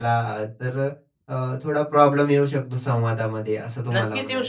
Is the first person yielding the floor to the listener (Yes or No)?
Yes